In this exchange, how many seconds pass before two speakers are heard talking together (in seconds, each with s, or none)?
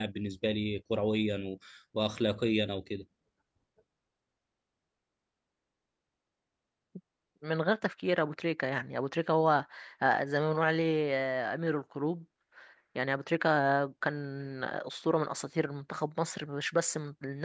none